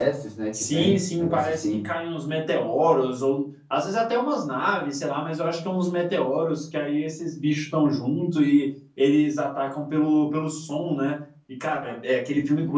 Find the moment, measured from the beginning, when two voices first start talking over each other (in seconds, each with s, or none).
0.5 s